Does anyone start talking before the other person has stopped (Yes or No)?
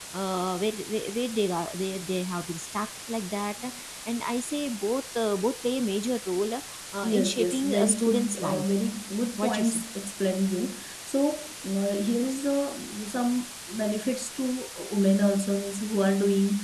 Yes